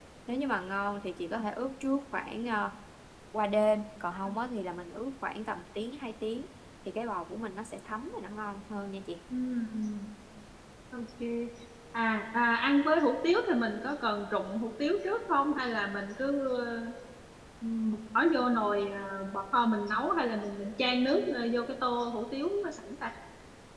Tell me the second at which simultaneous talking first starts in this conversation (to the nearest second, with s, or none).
none